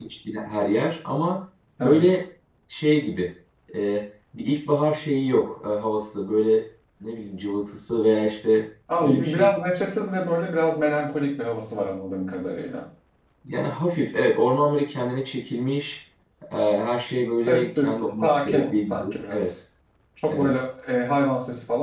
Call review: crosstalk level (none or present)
present